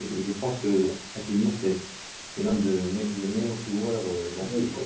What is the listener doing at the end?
listening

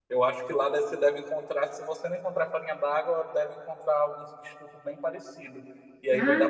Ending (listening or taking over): listening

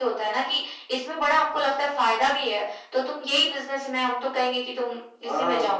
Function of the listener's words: taking over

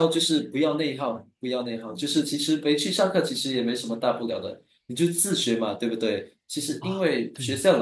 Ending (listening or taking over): listening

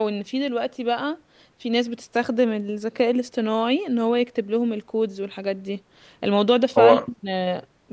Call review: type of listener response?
listening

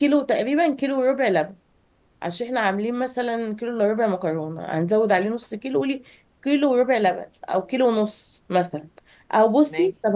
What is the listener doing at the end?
listening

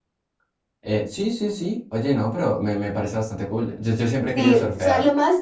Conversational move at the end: taking over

